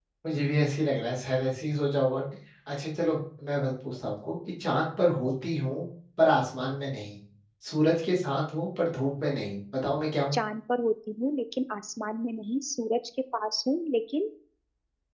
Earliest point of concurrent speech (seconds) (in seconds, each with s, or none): none